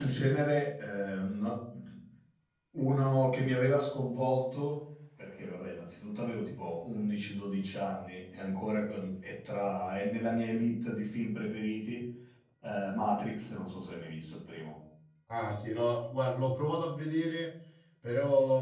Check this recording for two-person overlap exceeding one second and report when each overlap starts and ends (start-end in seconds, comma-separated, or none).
none